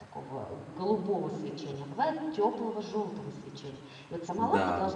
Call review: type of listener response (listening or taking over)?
listening